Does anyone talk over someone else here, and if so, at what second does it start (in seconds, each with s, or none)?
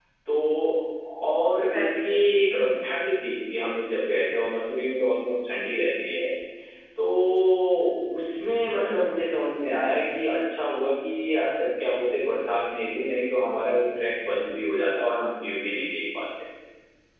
1.5 s